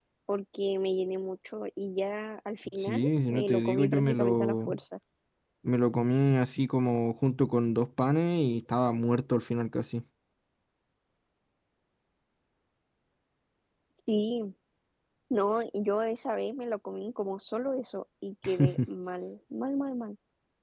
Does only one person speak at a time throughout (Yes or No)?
No